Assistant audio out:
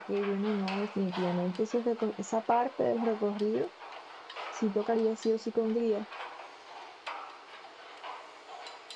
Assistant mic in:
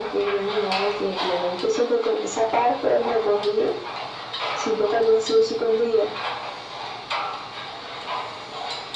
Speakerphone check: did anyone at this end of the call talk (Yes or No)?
No